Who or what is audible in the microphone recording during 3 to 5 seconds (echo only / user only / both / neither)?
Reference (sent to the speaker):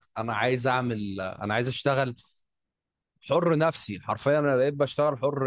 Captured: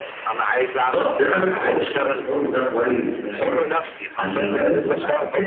both